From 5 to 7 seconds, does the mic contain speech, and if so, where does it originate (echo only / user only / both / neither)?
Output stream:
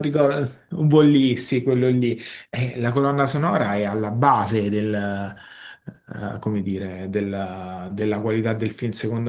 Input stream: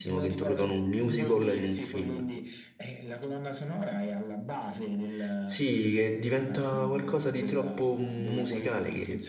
both